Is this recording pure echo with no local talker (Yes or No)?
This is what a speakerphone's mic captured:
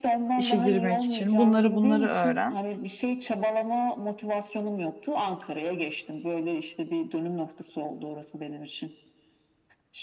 No